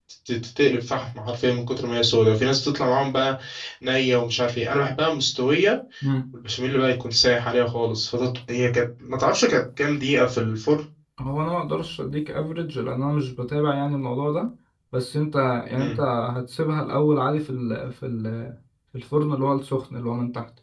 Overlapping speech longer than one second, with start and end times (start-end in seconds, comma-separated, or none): none